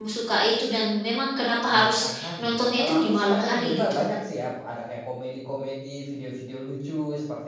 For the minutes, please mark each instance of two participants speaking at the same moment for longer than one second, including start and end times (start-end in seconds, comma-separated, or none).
1.7-4.0